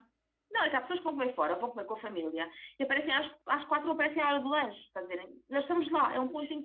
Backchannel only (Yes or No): Yes